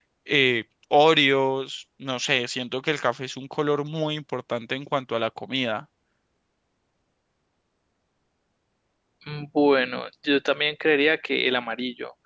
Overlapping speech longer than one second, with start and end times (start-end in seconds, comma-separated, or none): none